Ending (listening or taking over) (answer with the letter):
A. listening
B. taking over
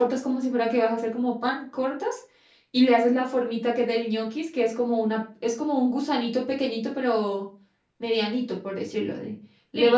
A